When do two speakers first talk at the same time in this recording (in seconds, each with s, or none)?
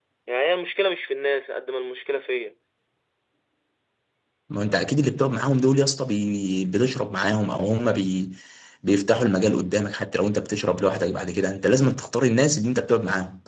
none